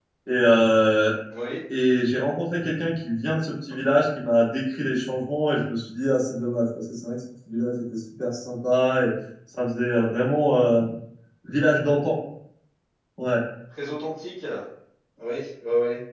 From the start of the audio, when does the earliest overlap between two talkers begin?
none

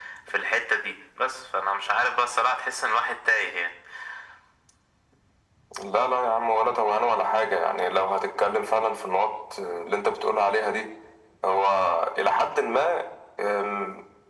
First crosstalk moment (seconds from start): none

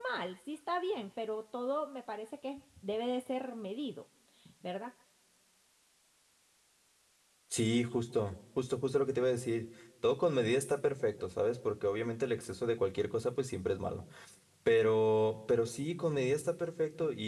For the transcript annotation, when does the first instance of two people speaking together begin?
none

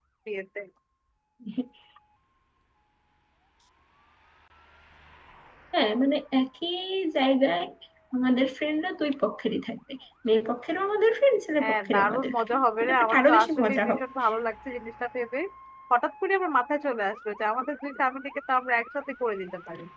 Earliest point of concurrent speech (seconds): 11.6 s

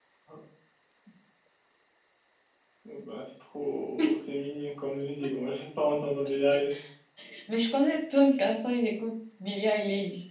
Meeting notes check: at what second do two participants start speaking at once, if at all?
none

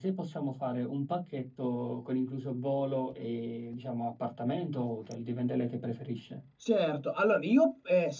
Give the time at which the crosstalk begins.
none

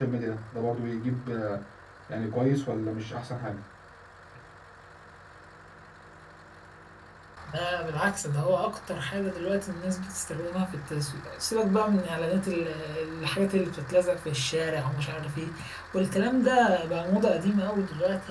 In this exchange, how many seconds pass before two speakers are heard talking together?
none

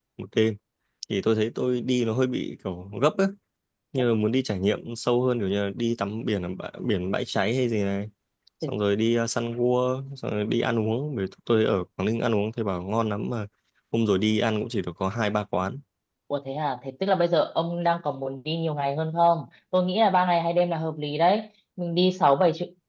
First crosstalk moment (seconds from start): none

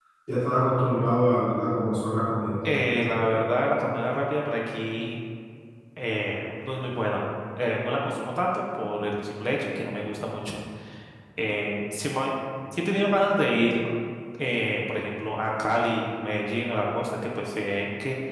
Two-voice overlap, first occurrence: none

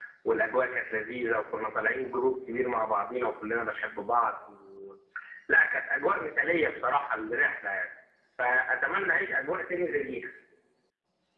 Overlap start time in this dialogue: none

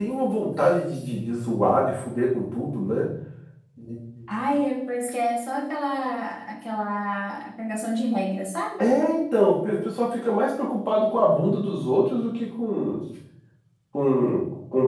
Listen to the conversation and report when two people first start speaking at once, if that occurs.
none

